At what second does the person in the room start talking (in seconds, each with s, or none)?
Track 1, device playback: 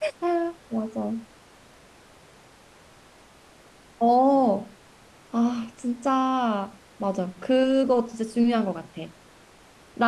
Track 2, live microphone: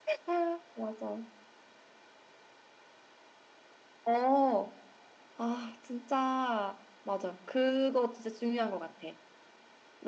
none